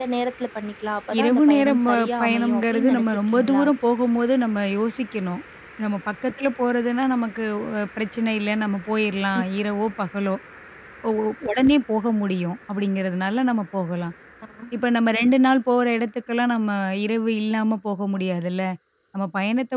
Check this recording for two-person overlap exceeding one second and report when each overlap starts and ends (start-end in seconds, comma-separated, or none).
1.2-3.6